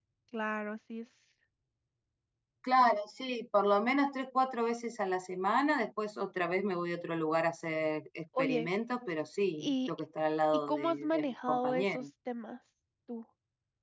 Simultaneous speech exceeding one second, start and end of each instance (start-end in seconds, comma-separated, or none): 10.7-12.1